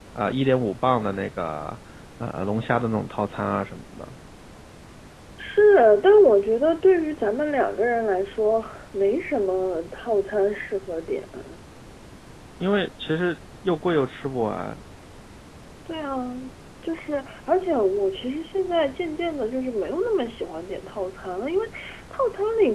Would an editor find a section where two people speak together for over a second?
No

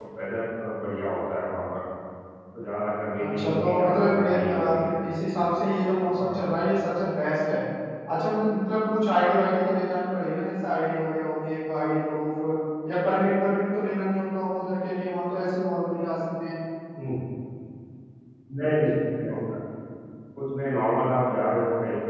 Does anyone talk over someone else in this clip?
Yes, from 3.2 s

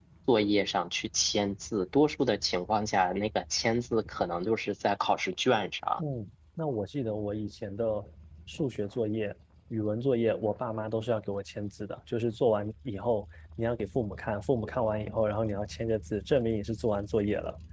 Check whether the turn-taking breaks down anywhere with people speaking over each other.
No

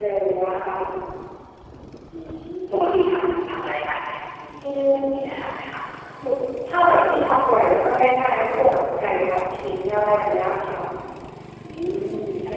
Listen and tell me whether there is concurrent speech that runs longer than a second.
No

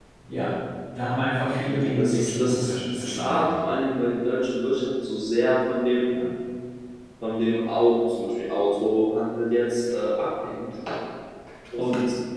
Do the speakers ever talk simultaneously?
Yes, from 1.7 s

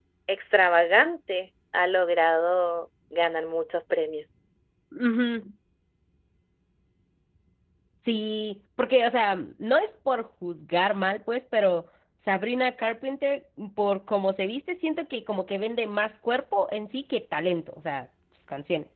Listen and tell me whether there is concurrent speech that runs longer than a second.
No

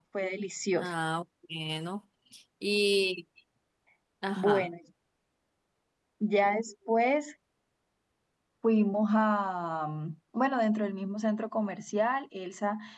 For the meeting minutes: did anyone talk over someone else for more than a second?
No

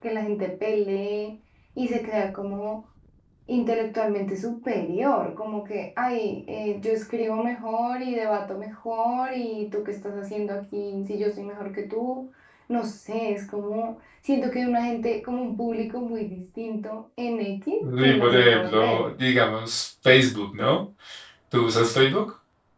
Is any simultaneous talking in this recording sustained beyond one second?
Yes, from 17.8 s

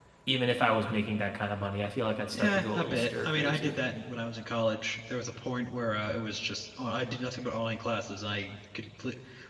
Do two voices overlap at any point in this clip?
Yes, from 2.3 s

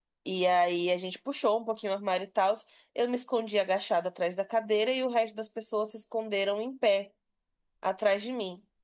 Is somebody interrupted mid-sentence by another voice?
No

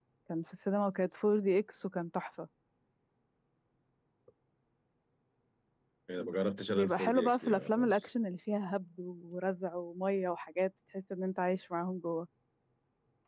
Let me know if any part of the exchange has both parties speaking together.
Yes, from 6.7 s

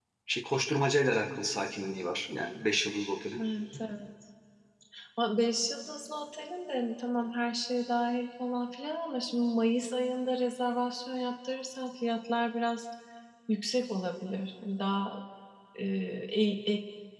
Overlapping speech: No

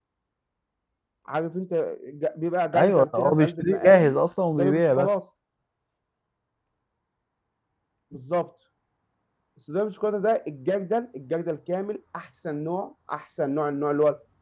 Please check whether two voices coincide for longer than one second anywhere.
Yes, from 2.7 s

